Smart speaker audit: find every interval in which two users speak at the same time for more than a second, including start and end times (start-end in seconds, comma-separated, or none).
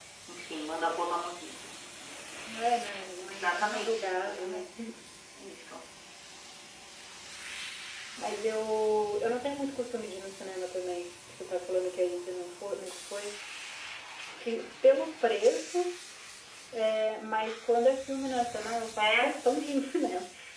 3.3-4.7